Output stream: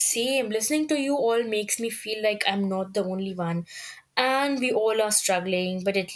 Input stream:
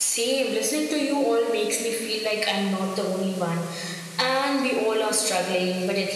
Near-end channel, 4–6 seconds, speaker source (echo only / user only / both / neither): echo only